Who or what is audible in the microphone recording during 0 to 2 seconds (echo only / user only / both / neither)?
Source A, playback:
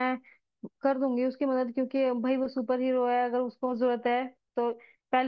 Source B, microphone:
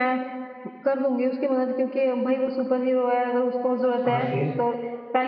echo only